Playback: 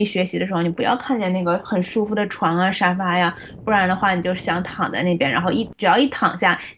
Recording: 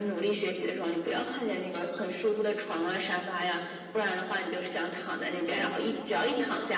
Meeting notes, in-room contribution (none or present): present